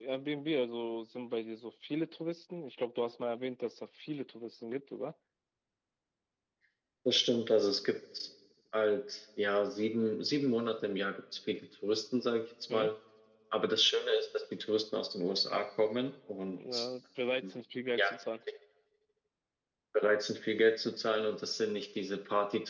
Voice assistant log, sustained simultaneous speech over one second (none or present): none